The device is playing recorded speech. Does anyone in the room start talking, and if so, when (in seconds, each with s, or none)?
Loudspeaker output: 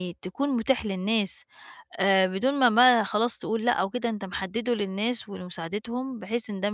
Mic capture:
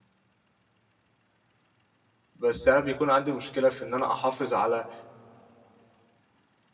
2.4 s